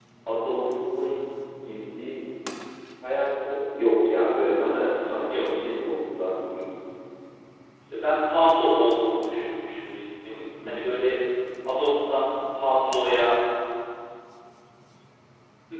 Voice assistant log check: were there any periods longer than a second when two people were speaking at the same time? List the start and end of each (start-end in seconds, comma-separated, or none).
none